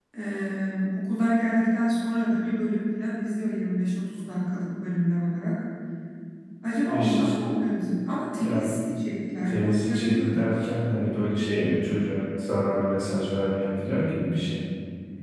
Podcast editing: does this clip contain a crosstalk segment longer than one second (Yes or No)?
Yes